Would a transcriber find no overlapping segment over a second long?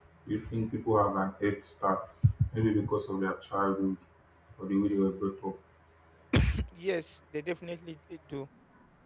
Yes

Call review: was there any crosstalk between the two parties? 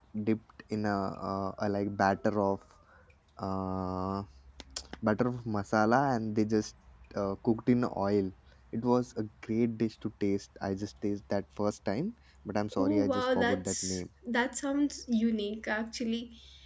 Yes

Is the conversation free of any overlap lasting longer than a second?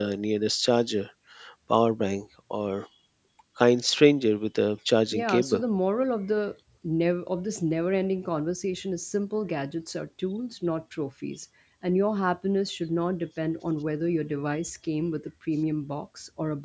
Yes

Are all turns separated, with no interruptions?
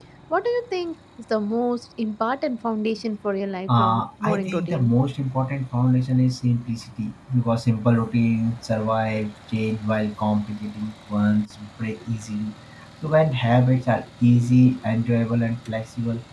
No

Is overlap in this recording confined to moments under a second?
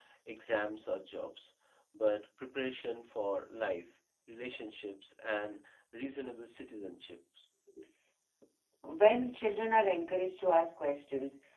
Yes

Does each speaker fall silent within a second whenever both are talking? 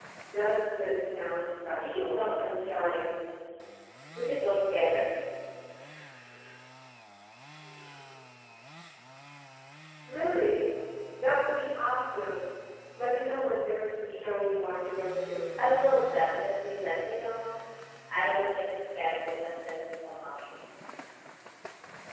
No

